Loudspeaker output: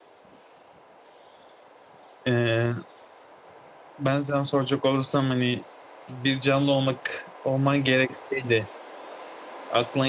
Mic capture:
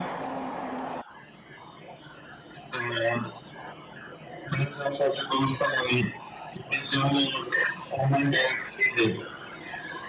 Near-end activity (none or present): none